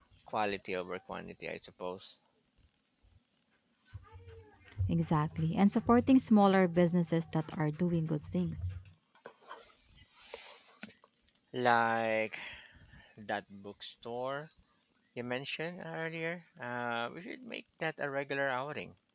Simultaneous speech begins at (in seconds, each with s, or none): none